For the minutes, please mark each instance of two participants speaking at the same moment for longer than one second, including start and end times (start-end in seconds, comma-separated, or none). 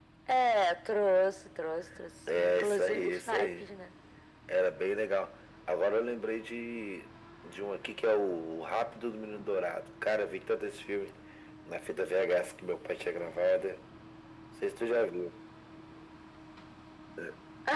2.3-3.7